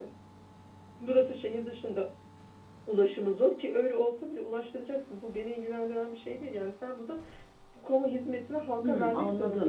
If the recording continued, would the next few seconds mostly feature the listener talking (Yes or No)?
Yes